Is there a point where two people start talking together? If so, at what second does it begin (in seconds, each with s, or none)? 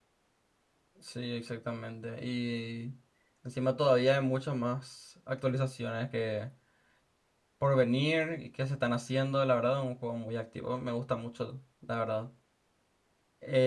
none